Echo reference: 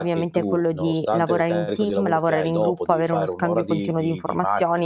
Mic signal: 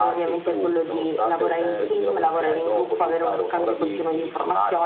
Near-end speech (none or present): none